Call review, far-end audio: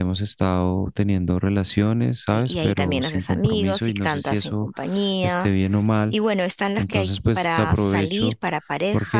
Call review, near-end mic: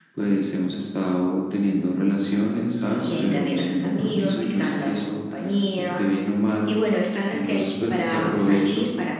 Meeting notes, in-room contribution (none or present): none